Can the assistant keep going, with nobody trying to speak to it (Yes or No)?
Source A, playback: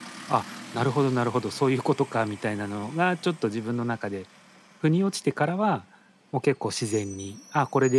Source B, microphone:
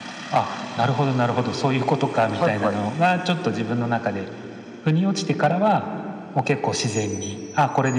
No